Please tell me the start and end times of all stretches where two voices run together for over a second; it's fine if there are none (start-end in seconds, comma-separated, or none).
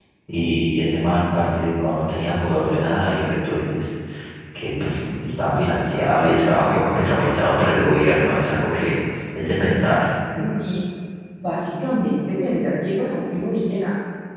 none